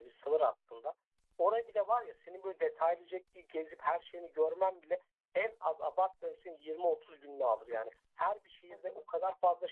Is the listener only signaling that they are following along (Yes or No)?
Yes